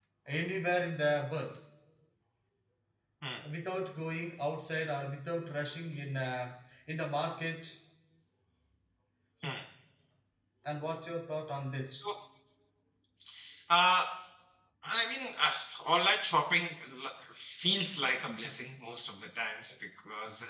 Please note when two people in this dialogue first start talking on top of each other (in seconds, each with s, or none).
none